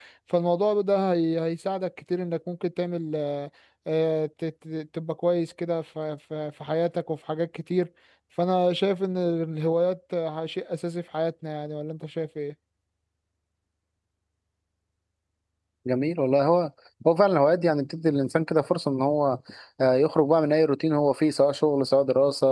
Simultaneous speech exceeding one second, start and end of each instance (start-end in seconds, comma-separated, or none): none